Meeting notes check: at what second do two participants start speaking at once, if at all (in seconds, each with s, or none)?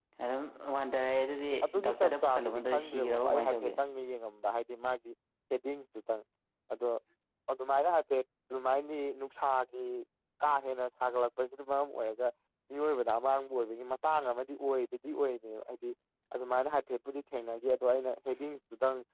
1.9 s